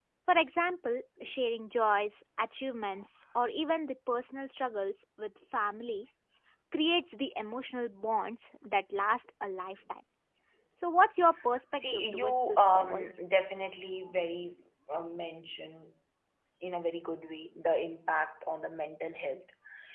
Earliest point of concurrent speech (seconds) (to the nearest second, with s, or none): 12 s